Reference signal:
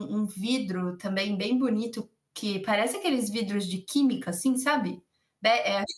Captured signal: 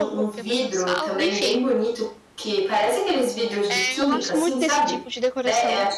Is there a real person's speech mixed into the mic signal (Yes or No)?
Yes